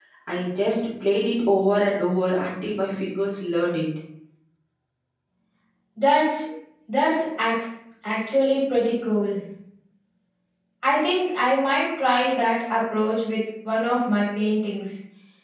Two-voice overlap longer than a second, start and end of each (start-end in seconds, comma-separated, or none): none